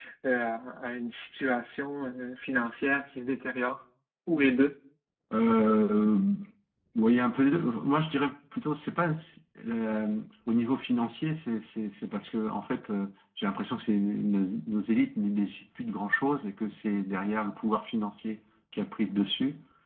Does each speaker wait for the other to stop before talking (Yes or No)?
Yes